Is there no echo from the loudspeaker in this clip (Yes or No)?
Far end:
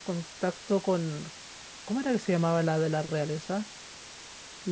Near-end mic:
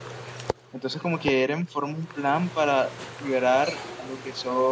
Yes